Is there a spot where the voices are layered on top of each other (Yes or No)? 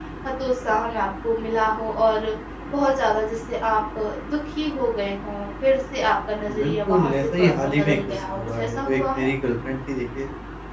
Yes